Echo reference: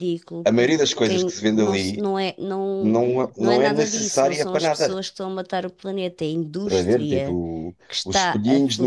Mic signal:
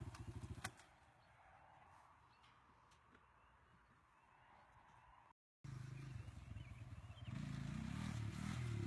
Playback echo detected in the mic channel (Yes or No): No